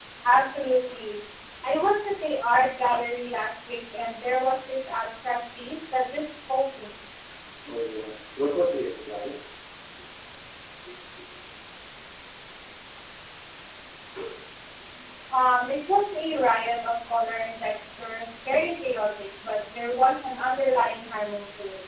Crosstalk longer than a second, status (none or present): none